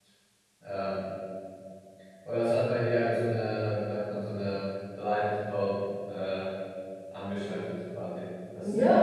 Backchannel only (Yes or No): No